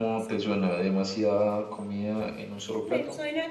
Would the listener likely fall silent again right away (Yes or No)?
No